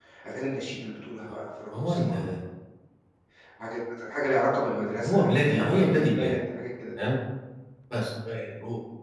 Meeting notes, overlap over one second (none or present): present